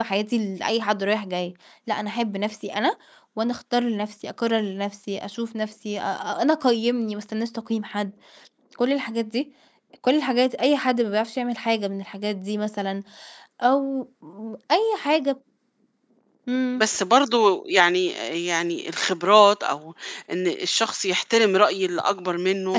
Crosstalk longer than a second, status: none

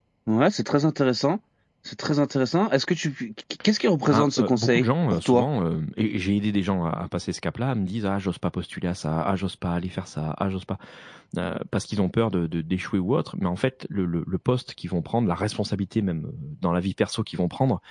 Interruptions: present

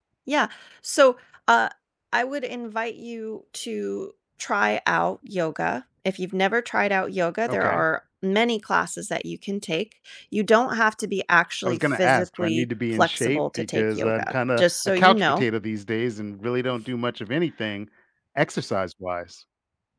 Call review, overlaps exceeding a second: present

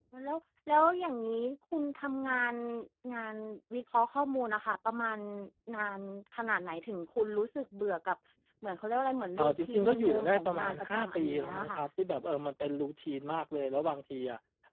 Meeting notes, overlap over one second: present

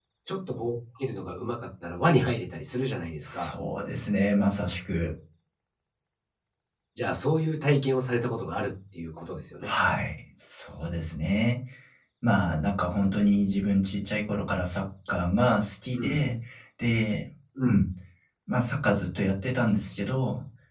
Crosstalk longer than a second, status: none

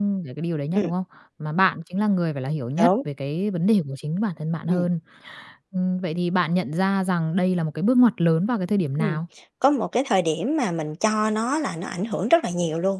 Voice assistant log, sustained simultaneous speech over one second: none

